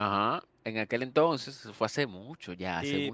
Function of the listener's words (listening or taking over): taking over